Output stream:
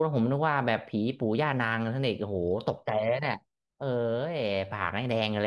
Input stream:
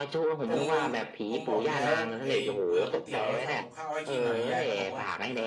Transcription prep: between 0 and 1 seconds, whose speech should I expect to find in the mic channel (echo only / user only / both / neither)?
both